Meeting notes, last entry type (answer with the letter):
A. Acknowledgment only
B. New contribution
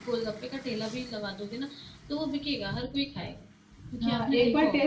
B